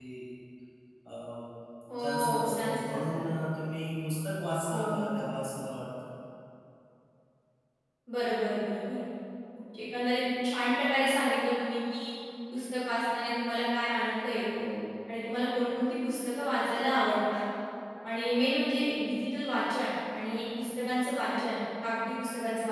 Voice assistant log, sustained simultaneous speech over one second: present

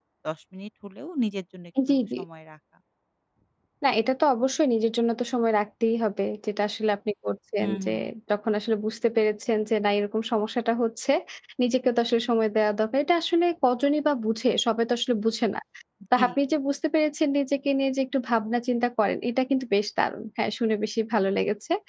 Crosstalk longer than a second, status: none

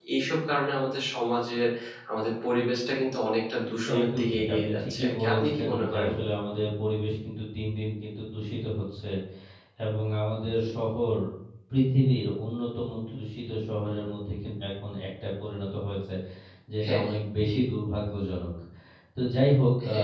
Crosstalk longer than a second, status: present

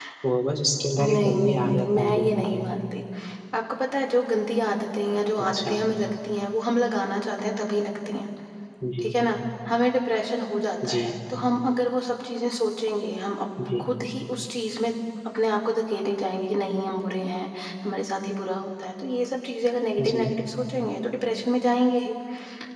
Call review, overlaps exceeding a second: present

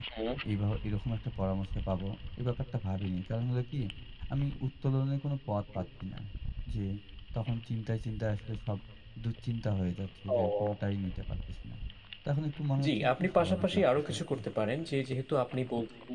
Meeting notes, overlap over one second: present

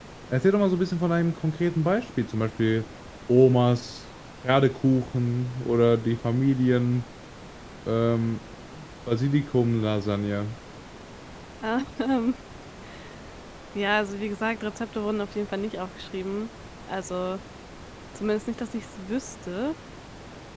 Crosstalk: none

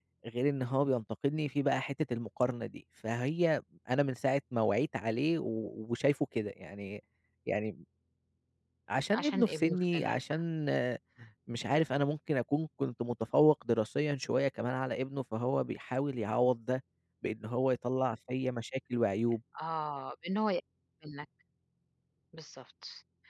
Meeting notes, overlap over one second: present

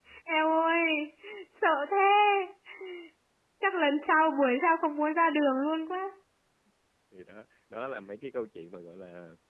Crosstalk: none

